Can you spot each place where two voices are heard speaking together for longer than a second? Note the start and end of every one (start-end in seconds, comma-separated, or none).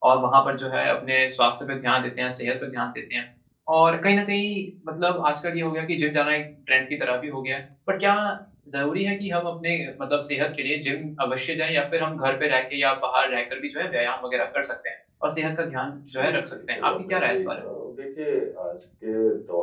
16.2-17.6